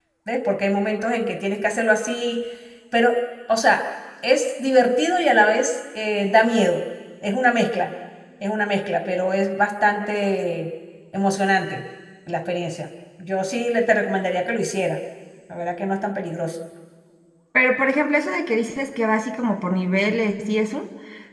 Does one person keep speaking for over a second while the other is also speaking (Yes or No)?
No